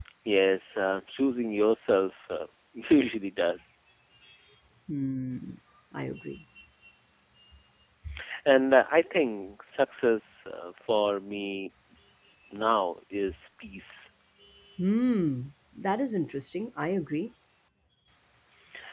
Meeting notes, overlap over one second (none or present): none